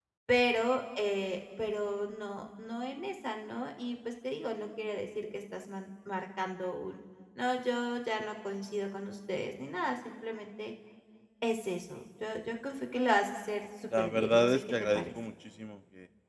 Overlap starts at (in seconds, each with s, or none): 13.9 s